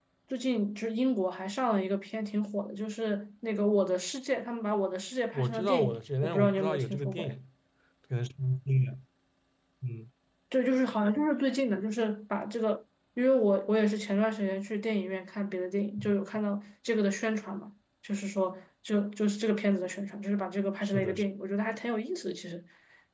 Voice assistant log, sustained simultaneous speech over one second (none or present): present